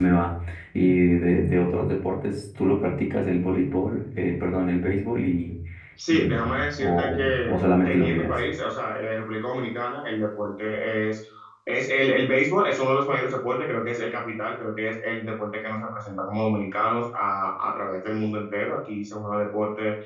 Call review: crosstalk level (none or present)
present